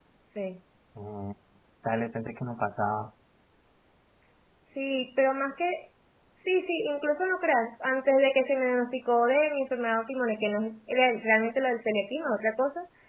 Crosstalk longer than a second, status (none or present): none